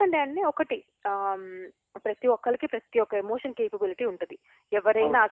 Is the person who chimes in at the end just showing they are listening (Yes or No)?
Yes